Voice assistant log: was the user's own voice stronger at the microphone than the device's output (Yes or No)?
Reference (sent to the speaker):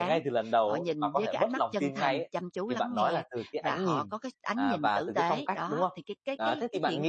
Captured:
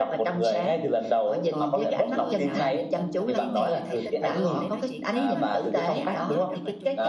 No